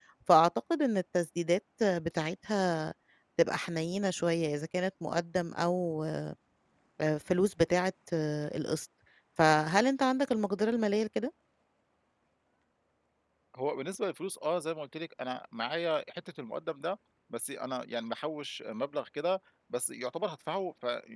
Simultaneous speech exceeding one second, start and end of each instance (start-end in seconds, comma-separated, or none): none